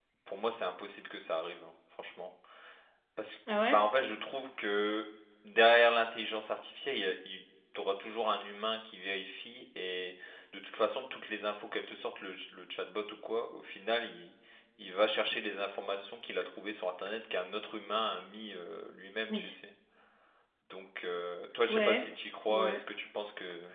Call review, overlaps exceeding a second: none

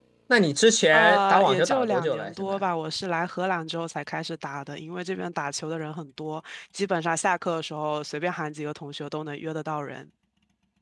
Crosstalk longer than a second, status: present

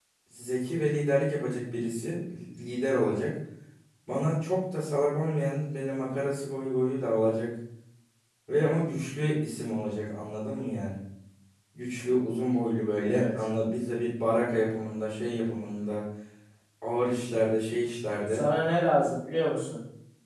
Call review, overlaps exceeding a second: none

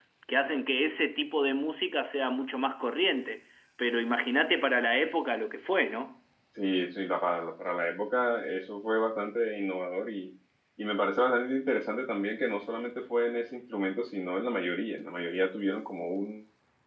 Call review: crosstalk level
none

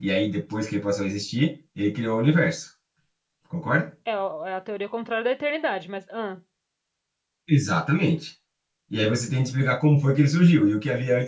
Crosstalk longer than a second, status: none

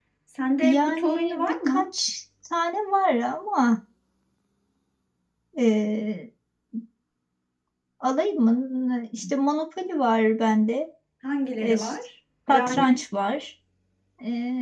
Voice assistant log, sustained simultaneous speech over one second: present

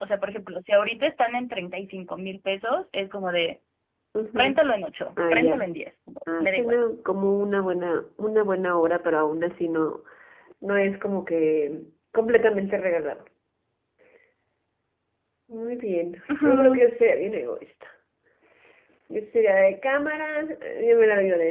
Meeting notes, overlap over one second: none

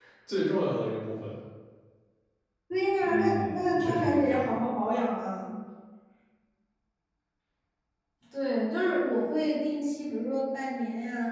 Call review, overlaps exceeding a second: present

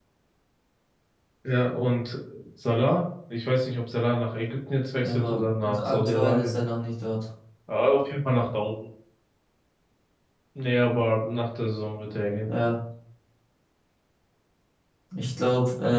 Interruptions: present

